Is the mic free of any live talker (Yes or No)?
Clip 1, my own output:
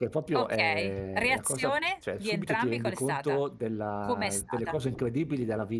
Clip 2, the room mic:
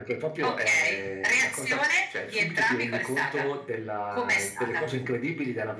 Yes